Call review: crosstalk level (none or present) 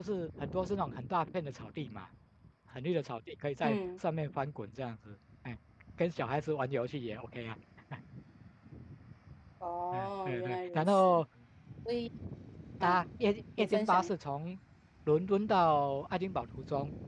present